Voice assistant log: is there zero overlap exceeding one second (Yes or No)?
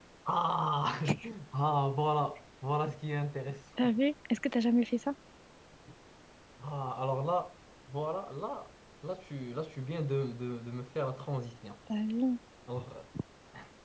Yes